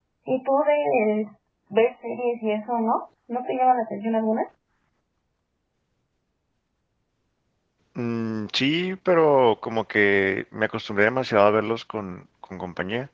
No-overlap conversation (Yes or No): Yes